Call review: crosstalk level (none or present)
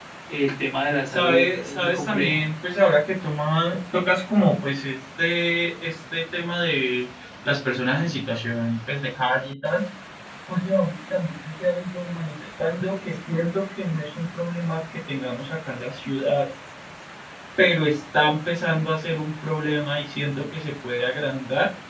present